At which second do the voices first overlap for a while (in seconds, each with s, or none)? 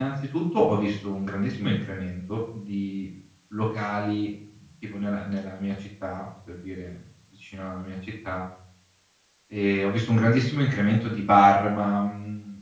none